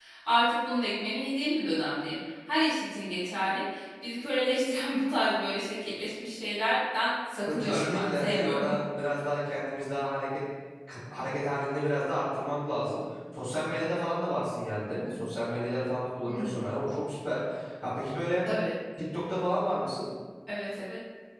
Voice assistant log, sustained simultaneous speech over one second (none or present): present